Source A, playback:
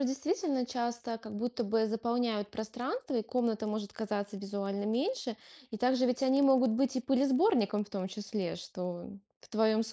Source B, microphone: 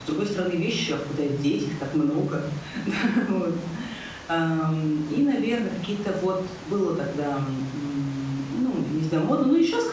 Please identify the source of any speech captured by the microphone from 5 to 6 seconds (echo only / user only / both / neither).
user only